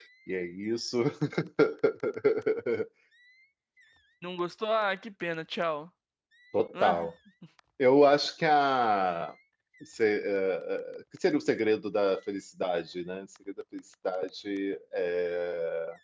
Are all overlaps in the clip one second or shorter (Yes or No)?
Yes